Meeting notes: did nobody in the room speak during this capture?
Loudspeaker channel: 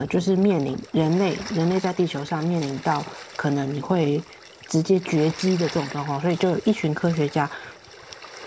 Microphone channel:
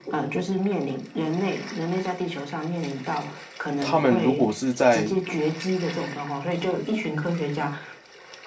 No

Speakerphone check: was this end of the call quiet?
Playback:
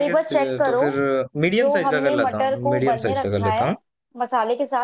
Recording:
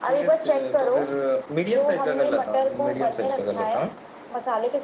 Yes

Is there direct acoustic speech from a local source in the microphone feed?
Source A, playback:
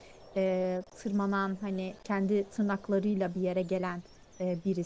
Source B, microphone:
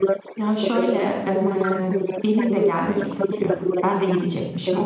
Yes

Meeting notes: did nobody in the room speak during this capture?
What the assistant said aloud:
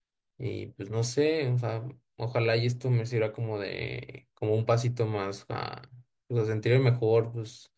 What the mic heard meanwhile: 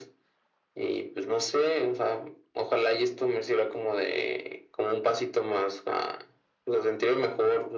Yes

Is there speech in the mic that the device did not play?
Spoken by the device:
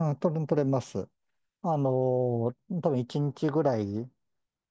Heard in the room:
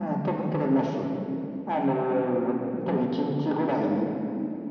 No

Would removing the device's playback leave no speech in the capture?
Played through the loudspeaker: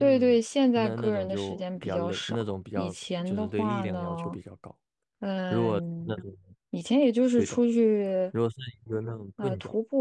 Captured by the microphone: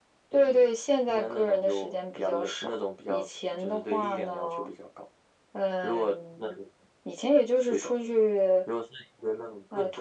Yes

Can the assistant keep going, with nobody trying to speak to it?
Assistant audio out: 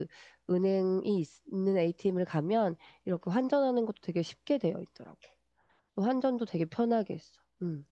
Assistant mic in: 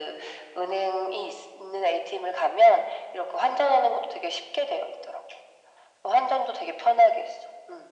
Yes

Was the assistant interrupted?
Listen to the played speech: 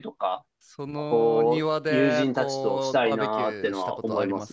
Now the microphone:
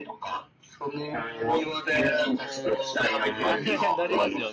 Yes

